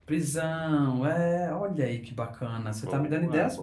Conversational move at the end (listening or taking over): taking over